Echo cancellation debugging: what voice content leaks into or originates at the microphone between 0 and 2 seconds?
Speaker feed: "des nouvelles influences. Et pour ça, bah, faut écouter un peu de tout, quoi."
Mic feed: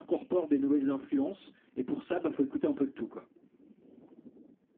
echo only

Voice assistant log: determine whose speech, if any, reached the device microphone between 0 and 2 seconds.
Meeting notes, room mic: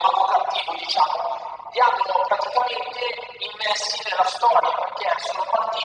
echo only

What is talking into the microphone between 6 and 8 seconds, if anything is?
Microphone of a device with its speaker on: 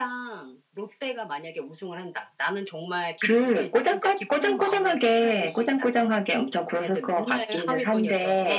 echo only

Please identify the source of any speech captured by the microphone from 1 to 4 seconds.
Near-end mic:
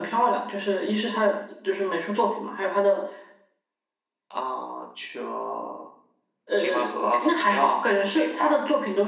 echo only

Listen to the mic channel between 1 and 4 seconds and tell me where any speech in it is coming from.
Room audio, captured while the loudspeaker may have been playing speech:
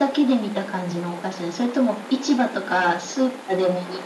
echo only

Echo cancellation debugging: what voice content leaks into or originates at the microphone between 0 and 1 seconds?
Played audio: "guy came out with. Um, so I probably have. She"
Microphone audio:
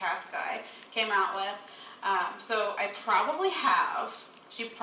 echo only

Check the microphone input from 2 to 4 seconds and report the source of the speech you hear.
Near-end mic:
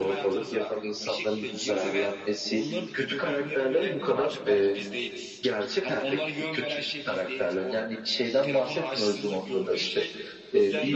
echo only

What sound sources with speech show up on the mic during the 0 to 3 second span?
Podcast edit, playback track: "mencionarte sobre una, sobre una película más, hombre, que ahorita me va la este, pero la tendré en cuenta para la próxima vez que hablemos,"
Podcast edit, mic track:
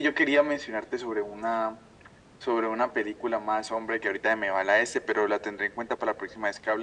echo only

